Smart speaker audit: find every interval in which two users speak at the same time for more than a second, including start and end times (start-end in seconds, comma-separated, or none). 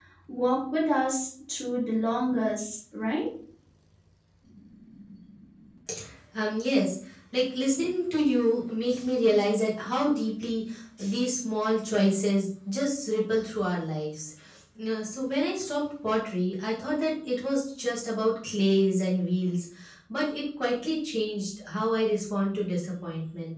none